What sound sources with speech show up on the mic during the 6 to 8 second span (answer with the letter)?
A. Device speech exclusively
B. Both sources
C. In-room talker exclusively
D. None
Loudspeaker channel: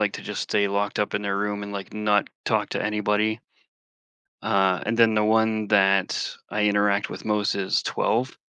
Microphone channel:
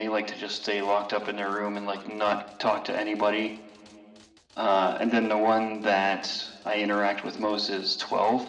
A